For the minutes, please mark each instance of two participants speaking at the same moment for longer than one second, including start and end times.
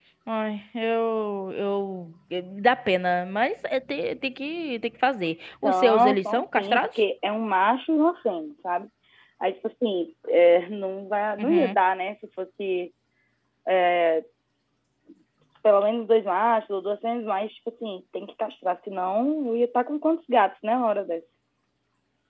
5.6-6.9

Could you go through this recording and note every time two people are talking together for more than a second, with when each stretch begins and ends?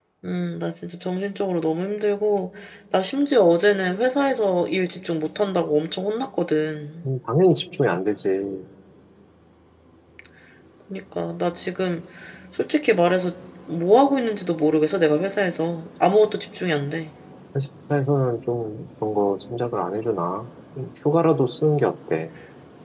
none

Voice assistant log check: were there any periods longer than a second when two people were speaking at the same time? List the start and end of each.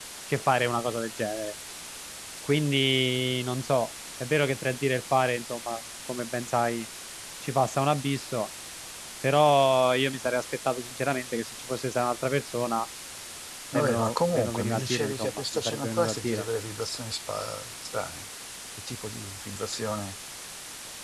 13.7-16.4

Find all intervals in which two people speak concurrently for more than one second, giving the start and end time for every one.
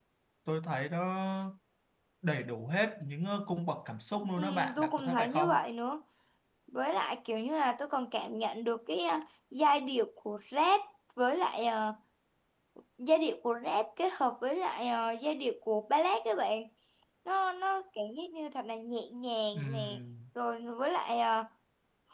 4.4-5.6

